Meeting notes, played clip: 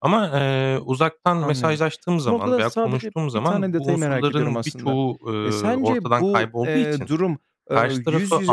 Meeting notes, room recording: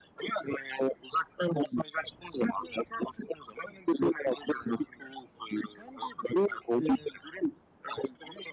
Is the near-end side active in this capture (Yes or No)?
No